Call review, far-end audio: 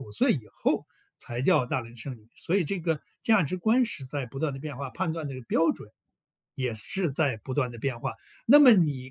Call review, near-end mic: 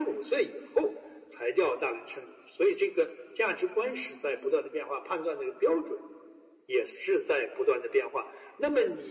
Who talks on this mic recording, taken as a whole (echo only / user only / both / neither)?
echo only